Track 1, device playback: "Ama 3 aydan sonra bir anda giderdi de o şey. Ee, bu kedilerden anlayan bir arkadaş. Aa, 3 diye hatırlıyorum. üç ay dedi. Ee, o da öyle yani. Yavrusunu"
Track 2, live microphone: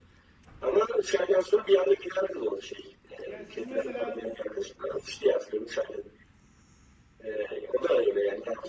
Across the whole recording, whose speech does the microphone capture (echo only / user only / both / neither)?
both